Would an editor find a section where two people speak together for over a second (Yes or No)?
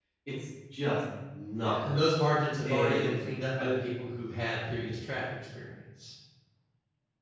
No